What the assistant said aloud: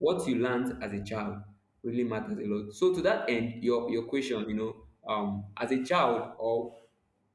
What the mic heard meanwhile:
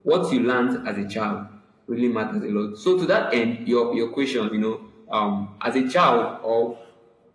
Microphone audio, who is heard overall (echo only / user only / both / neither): echo only